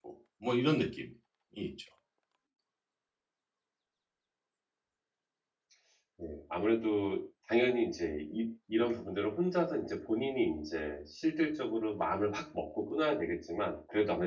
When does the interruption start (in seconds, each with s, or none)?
none